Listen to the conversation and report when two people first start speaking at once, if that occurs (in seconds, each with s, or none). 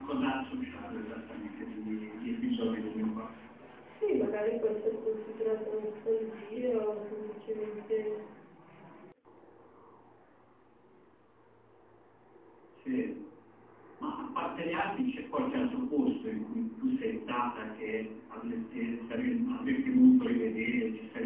none